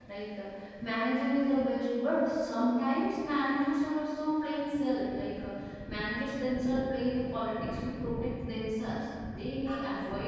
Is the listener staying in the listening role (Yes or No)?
Yes